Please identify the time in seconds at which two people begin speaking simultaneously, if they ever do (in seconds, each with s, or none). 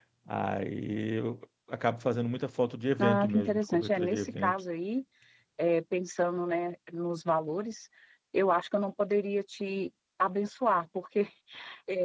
3.0 s